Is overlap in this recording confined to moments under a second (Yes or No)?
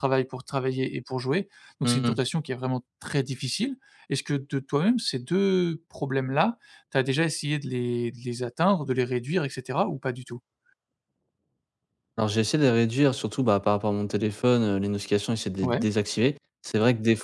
Yes